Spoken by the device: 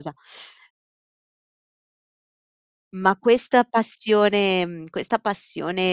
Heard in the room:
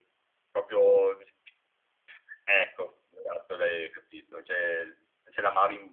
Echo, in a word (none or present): none